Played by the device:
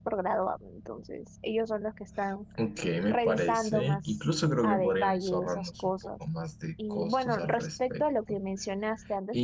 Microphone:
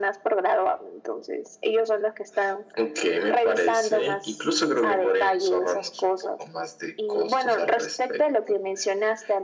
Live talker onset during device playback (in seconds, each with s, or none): none